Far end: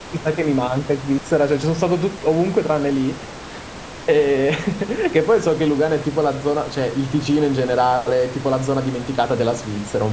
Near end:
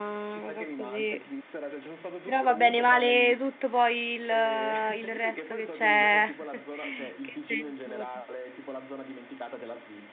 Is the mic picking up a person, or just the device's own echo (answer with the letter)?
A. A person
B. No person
A